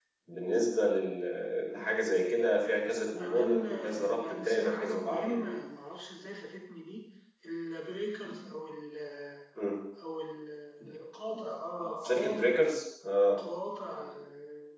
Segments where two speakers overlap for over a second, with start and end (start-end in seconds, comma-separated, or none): 3.2-5.6